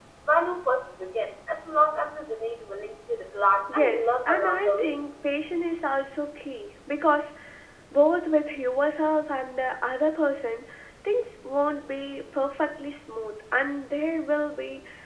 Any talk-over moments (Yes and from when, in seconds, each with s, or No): Yes, from 3.7 s